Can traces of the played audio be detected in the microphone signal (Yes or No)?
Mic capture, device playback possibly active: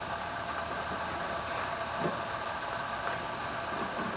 No